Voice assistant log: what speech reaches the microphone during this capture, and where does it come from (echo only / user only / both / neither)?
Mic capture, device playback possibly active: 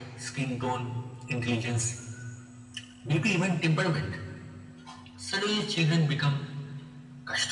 echo only